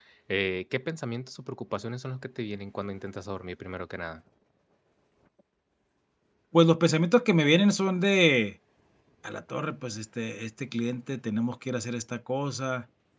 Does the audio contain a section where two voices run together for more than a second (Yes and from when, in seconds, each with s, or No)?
No